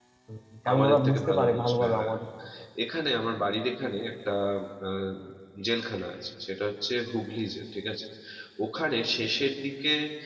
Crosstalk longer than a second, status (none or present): present